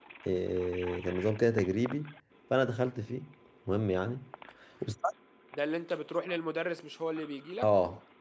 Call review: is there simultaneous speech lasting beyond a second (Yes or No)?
No